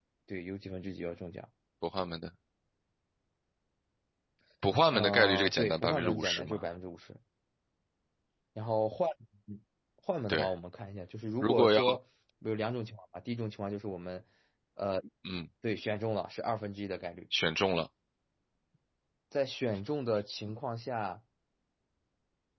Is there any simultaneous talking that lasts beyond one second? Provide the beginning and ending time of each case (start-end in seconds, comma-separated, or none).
4.9-6.6